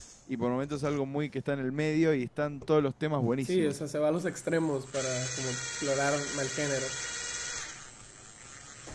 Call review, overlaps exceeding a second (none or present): none